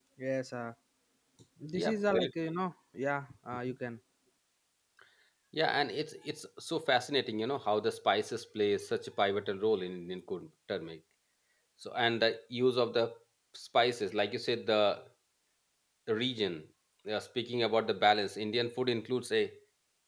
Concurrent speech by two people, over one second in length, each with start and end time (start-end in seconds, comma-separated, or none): none